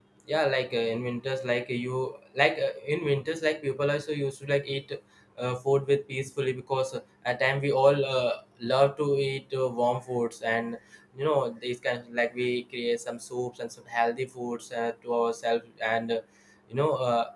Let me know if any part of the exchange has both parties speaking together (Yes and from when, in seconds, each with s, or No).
No